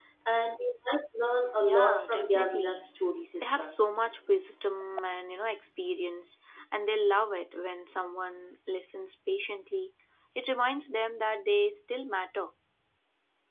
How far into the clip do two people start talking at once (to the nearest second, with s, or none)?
2 s